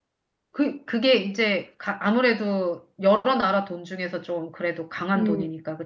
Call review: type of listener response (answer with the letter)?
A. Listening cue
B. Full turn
B